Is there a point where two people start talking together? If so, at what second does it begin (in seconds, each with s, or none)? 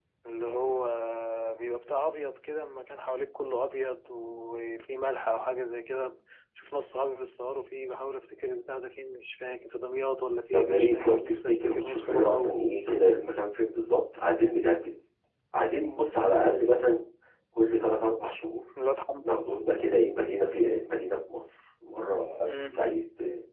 10.5 s